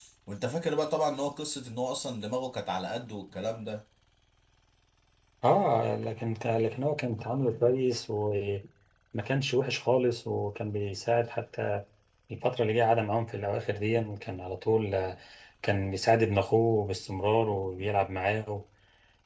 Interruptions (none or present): none